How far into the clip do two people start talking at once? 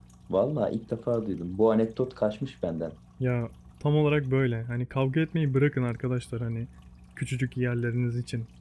none

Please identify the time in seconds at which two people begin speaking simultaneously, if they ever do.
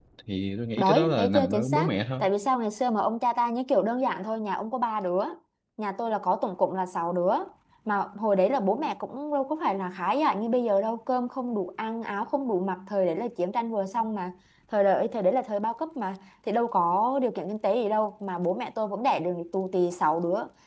0.8 s

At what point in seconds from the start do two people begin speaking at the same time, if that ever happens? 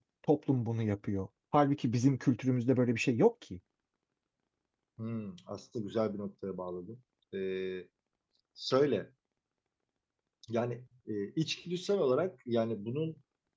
none

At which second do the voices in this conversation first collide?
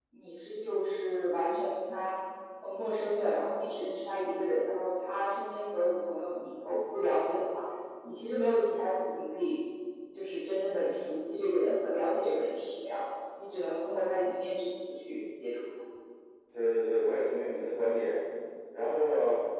none

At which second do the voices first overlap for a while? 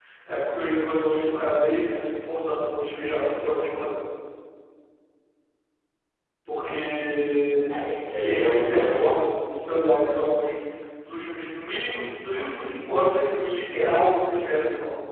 7.7 s

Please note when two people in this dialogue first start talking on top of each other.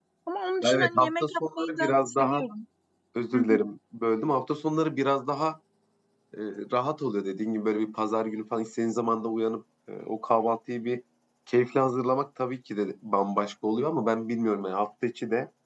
0.6 s

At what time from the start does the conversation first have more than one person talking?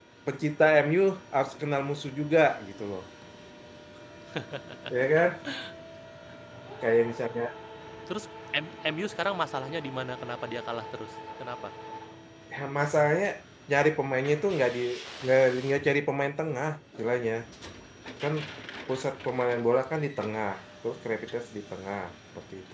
none

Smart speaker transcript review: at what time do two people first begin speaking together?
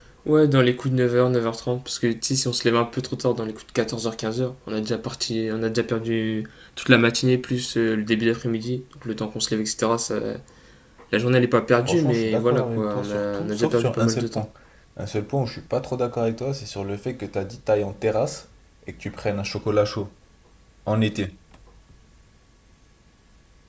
11.8 s

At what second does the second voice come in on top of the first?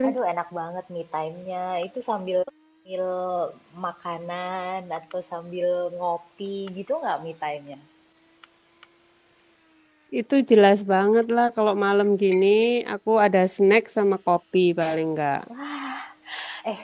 none

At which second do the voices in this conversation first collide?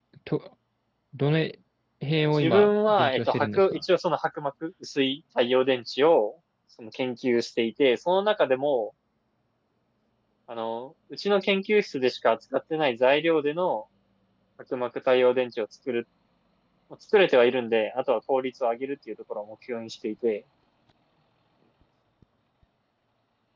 2.3 s

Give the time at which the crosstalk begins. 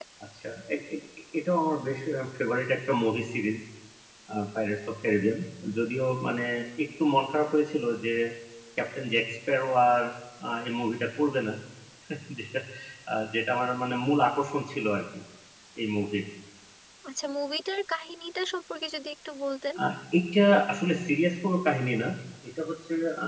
none

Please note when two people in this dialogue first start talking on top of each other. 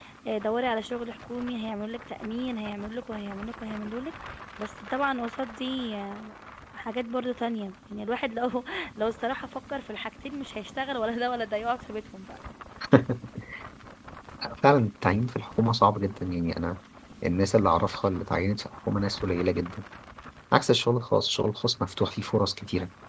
none

